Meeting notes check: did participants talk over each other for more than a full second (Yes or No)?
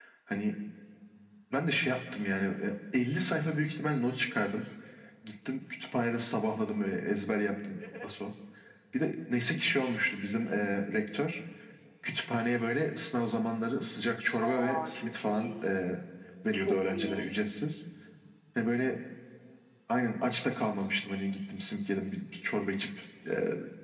Yes